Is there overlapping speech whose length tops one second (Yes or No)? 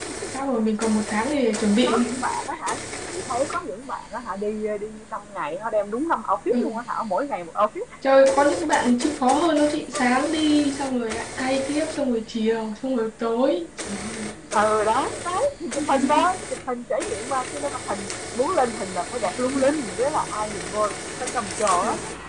No